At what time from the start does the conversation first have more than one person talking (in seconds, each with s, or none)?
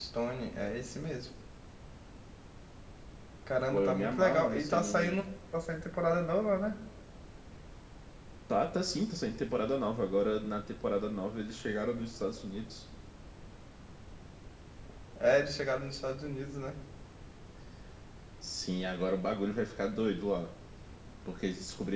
3.7 s